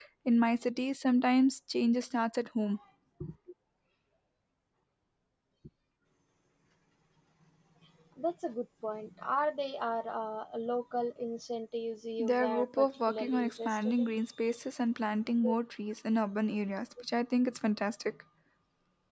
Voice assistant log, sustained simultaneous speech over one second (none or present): present